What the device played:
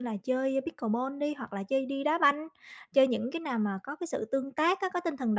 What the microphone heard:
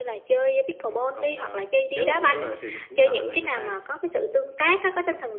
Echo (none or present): present